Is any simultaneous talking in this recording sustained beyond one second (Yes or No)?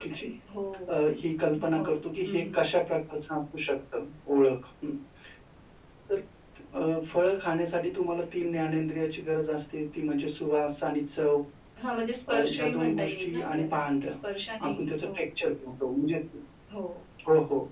Yes